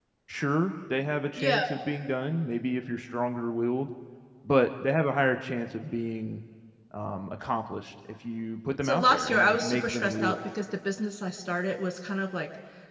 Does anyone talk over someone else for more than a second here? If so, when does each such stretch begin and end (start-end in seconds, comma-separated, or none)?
8.8-10.4